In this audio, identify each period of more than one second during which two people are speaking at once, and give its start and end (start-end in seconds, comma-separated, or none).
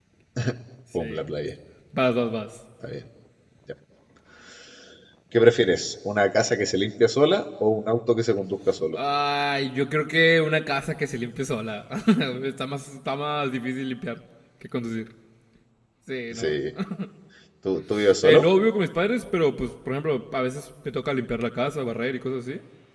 none